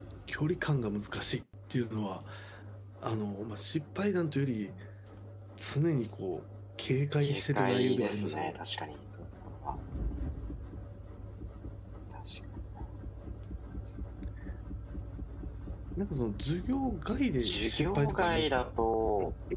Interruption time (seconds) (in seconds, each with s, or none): 7.2 s